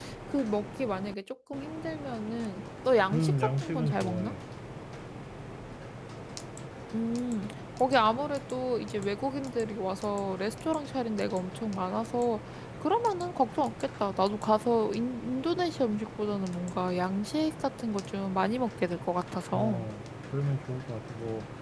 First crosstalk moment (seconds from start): 3.1 s

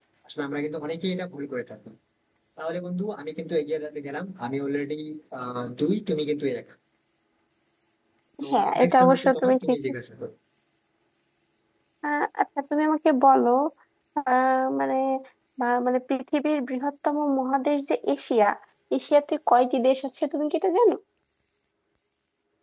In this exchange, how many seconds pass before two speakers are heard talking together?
8.5 s

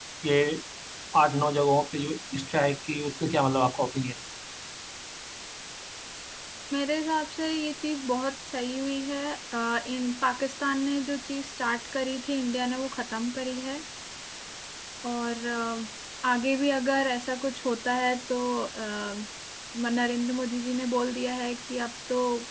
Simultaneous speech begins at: none

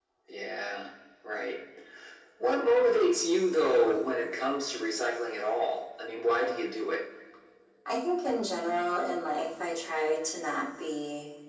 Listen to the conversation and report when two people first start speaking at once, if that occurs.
none

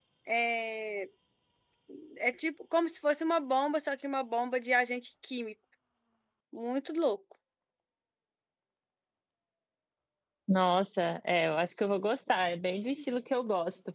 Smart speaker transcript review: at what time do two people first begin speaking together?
none

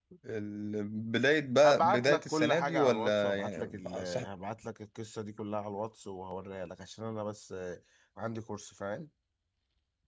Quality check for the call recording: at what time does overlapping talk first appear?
1.6 s

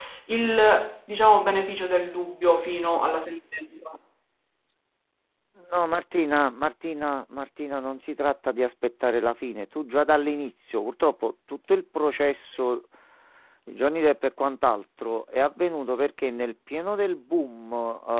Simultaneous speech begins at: none

